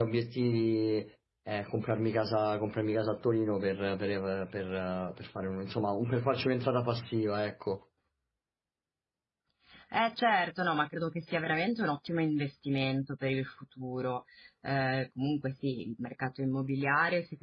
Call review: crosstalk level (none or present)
none